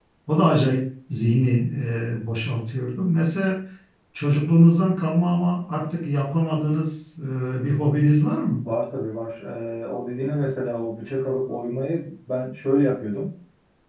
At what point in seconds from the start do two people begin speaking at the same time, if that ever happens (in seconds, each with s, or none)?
none